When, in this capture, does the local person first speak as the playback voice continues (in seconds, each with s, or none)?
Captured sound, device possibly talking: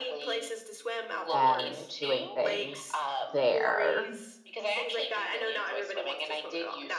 1.3 s